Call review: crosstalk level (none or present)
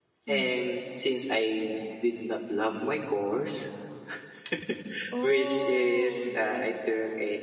present